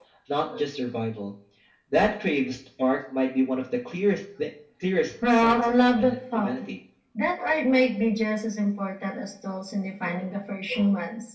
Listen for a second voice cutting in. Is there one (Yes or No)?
Yes